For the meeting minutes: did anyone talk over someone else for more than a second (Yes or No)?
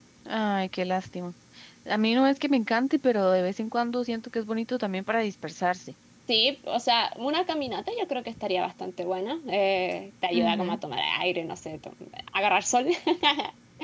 No